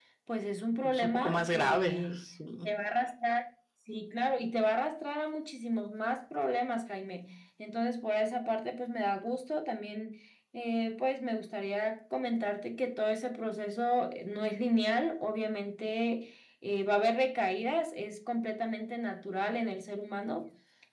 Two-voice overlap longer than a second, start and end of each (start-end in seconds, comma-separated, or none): 0.9-2.2